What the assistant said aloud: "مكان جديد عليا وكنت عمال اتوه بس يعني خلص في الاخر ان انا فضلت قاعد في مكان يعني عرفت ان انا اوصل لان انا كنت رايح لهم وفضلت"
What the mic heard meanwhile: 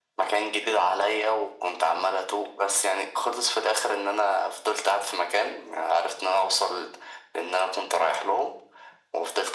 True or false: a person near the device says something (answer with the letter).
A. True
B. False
B